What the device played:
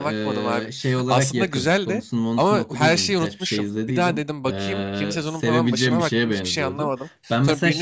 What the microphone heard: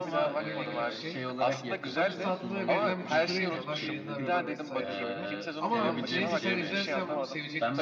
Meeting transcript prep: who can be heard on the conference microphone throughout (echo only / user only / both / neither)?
both